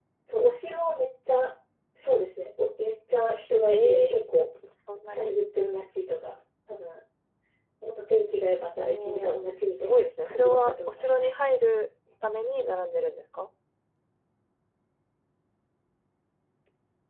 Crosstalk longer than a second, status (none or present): present